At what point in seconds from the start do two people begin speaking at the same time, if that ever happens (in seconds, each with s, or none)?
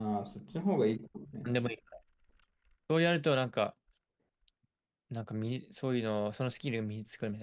none